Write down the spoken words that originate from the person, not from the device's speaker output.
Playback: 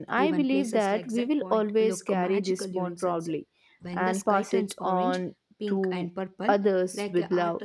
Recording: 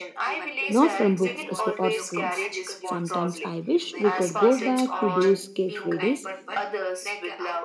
not from books so- or screens. Sometimes I wish we could go back to those carefree days,

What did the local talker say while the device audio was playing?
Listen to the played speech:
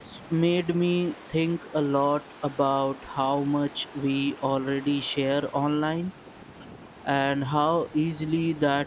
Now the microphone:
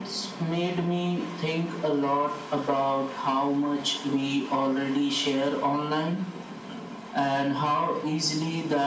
none

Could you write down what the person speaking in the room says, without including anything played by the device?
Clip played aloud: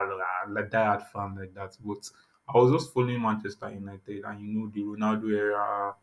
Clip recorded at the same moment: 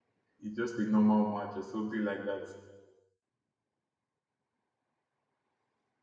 is just a normal match or something like that.

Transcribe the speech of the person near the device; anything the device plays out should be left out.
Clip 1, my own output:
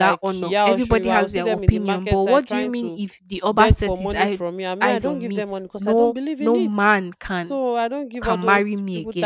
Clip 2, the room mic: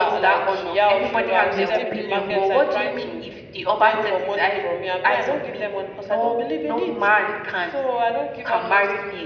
they still believe in

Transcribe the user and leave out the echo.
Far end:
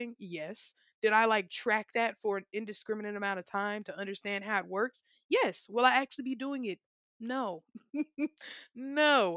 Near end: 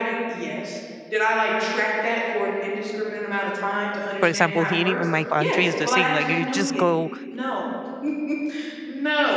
for example here in in my country is the same like you just go

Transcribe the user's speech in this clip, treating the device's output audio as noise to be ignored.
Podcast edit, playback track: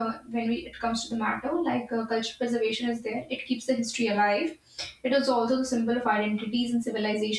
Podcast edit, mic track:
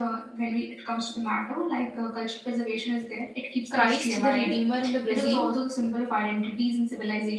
Christ the Redeemer in the Brazil,

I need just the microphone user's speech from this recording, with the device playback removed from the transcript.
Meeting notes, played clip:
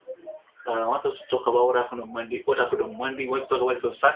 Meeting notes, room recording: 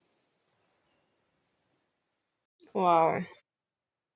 Wow.

